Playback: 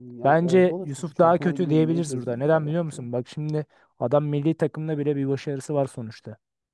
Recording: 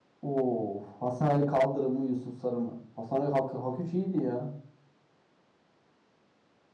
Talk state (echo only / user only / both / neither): user only